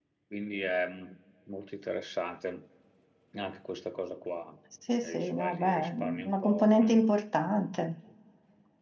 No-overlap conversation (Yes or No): No